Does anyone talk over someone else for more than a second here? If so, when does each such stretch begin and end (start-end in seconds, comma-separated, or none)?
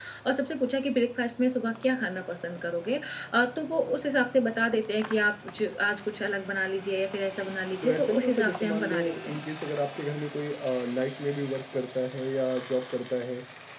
7.8-9.4